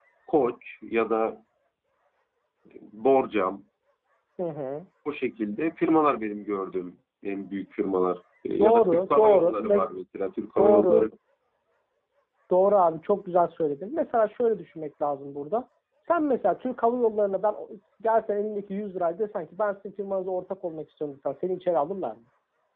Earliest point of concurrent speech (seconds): 8.6 s

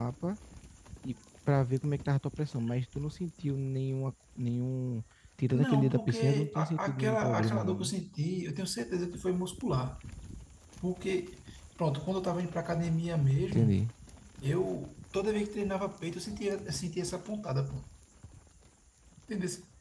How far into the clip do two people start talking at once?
5.5 s

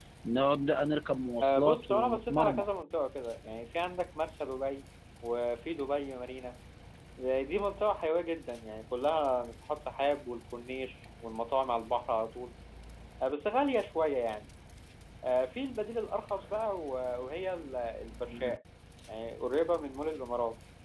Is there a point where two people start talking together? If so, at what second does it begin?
1.4 s

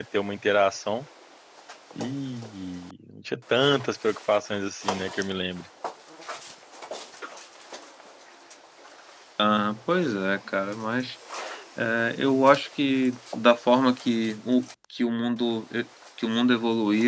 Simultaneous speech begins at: none

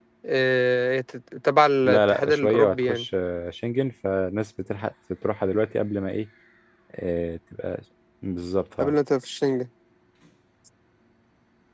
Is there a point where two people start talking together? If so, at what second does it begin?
1.8 s

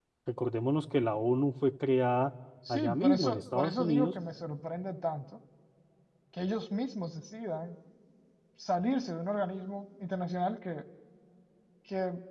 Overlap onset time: 2.6 s

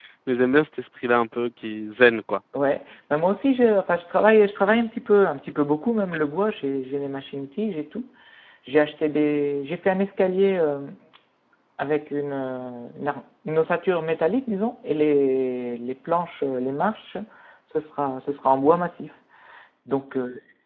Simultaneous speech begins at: none

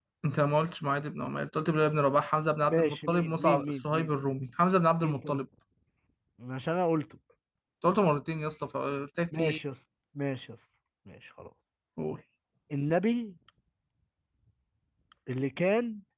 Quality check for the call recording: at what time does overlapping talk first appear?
2.7 s

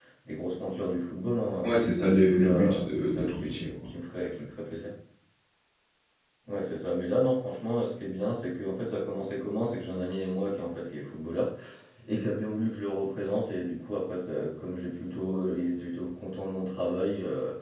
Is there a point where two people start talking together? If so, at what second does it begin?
1.6 s

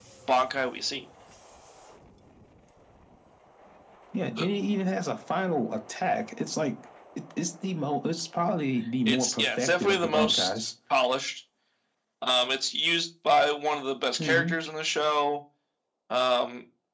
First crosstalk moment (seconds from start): 9.1 s

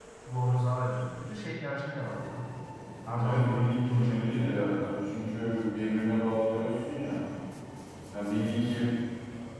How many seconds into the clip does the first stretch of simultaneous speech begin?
3.2 s

